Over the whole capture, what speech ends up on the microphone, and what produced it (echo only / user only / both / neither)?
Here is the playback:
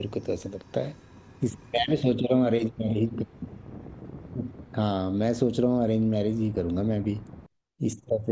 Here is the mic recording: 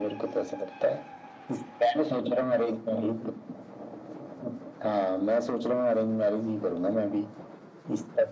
echo only